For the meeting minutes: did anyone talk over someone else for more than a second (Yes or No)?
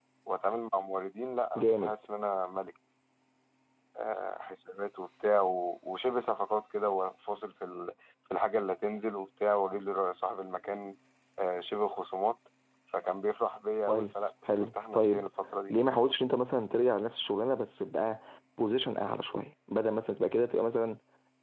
Yes